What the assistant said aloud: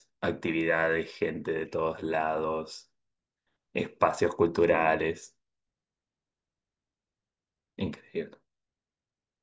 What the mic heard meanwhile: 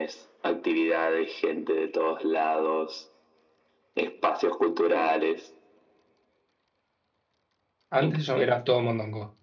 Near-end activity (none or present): present